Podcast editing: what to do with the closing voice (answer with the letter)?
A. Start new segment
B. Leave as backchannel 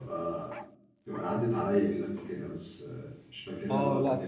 A